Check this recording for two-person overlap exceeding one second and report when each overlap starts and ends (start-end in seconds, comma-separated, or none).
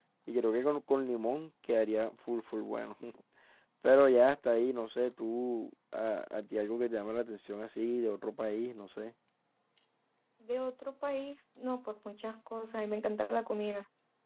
none